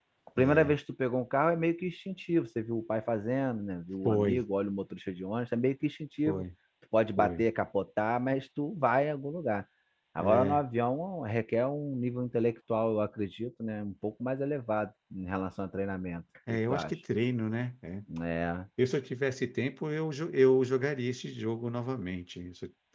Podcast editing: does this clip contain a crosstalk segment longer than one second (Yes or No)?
No